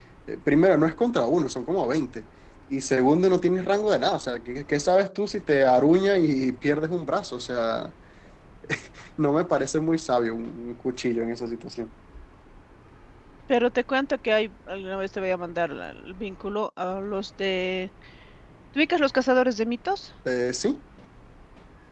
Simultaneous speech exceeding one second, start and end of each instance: none

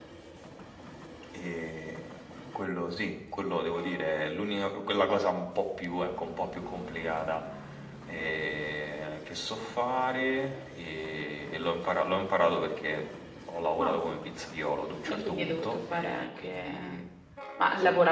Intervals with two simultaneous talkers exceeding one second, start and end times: 15.1-17.0

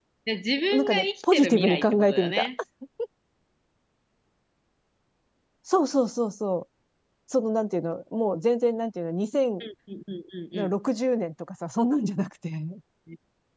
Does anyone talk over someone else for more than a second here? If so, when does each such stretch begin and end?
0.7-2.5

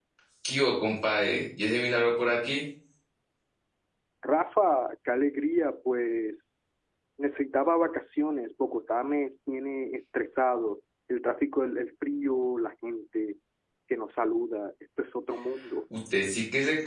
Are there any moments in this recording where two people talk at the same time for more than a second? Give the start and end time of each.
none

